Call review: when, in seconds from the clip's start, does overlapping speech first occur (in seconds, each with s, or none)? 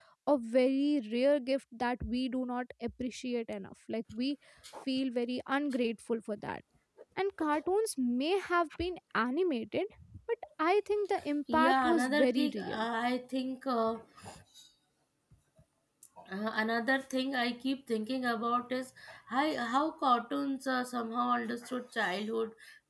11.5 s